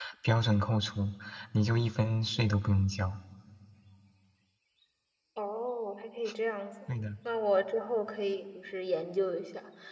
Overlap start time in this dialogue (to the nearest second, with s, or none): none